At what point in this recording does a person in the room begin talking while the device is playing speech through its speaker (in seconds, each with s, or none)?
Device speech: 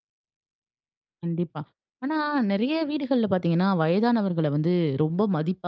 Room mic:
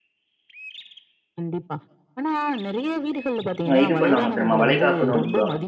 3.7 s